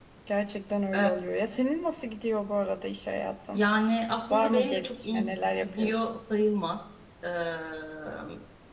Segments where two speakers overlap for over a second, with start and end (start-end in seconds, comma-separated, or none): 4.3-6.2